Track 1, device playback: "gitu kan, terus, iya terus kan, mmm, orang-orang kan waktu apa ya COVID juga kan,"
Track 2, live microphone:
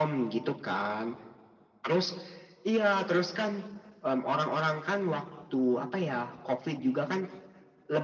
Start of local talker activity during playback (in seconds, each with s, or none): none